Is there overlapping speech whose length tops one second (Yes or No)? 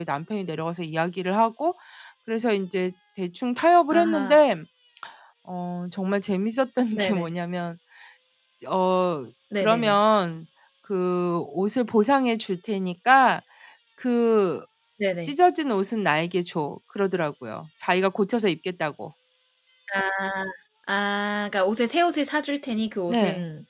No